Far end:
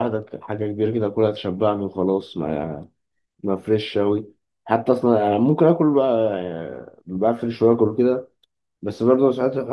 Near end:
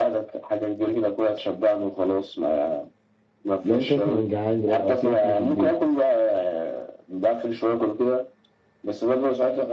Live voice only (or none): لو أنت مثلا جعان دلوقتي أو في أكل في البيت